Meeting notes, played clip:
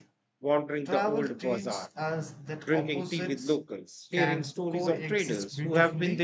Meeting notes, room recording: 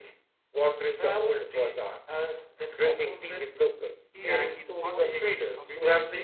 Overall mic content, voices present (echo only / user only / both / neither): both